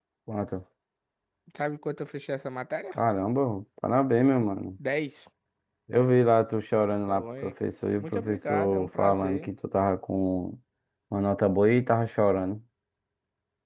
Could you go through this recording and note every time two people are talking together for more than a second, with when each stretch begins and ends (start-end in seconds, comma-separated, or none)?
8.0-9.5